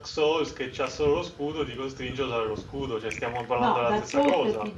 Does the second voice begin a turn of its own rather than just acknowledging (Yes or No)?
Yes